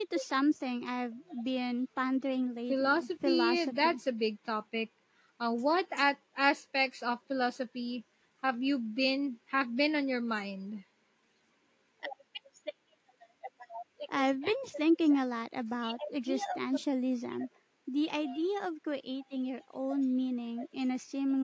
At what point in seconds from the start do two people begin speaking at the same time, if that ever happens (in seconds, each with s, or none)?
2.7 s